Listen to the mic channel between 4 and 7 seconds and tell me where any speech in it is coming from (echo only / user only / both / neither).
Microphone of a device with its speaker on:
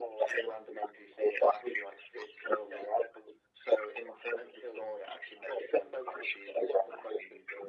echo only